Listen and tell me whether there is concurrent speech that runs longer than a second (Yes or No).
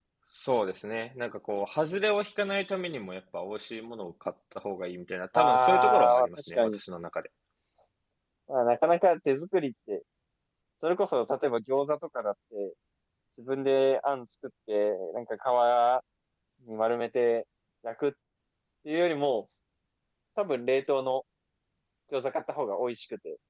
Yes